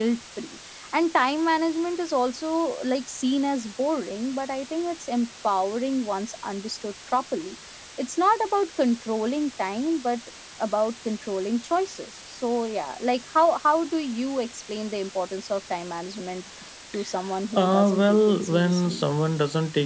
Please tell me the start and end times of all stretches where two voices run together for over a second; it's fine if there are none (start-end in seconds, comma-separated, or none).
17.6-19.0